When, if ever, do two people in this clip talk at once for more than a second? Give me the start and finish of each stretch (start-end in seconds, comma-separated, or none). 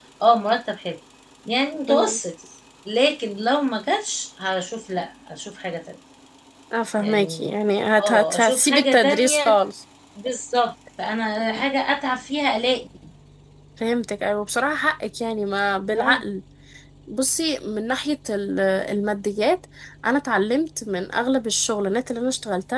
8.0-9.6